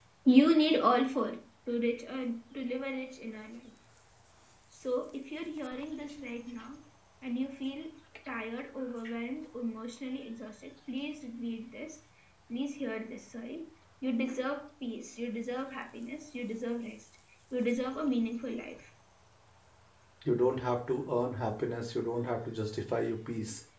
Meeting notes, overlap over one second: none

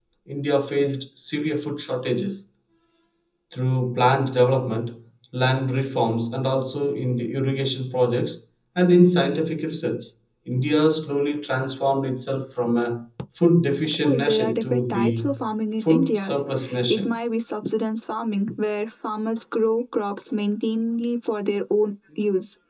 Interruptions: present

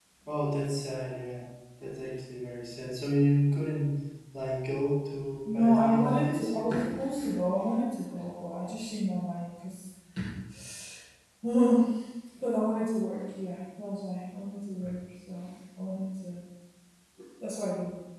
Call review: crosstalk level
present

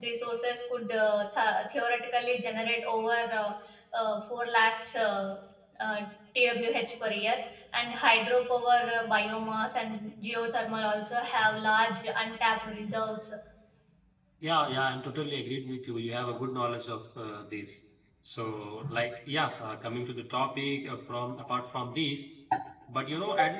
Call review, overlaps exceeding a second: none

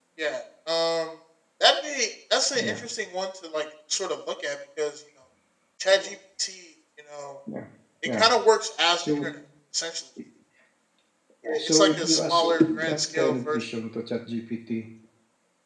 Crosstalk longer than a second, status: present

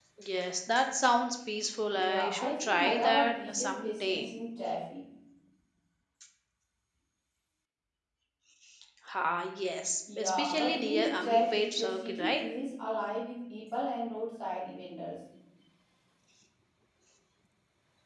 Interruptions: present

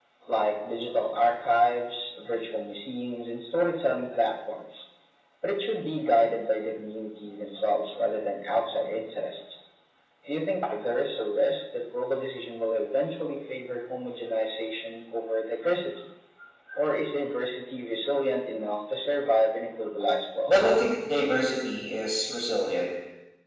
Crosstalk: none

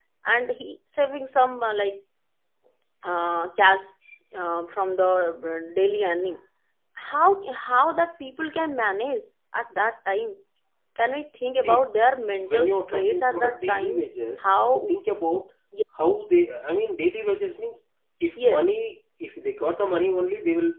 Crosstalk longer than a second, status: present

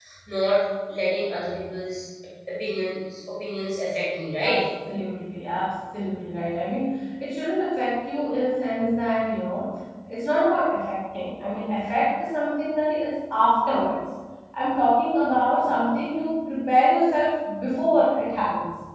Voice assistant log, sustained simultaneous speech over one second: none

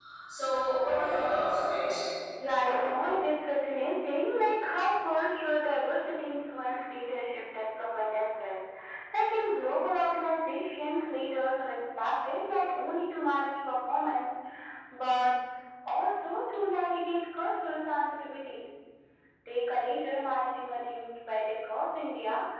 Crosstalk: none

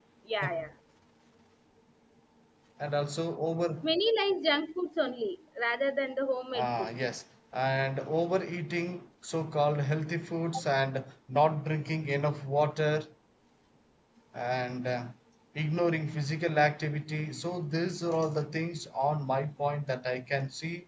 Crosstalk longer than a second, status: none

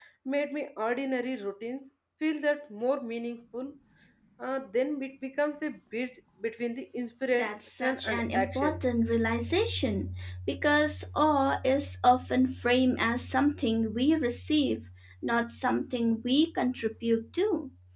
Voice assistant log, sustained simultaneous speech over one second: present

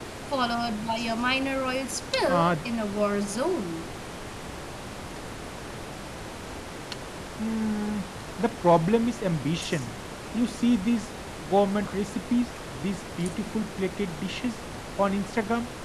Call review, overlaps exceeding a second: none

